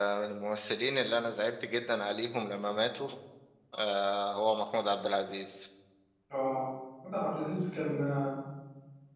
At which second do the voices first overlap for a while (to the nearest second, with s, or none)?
none